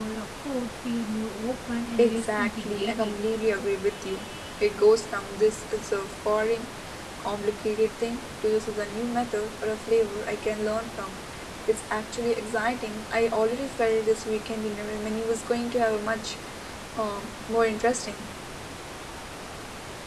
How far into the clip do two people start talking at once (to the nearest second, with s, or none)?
2 s